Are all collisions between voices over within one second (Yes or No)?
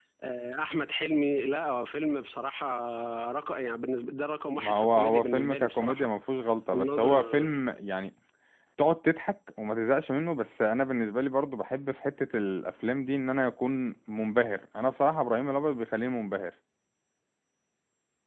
No